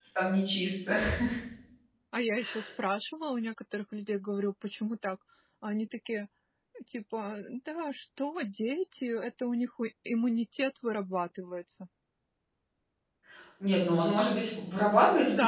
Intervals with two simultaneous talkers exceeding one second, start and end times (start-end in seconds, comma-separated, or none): none